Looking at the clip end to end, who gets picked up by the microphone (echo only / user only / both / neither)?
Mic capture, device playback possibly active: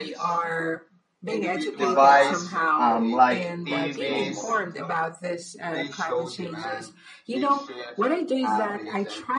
both